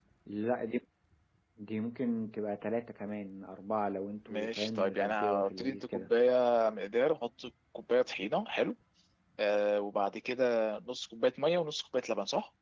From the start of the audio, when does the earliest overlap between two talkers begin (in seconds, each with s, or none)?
4.3 s